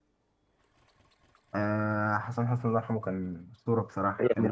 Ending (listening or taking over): taking over